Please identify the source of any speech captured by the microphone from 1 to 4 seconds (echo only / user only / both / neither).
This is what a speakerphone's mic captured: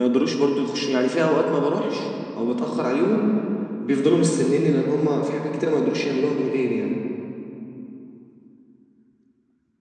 echo only